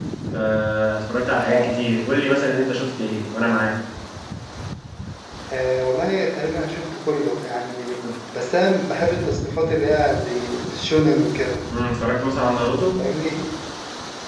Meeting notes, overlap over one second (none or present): none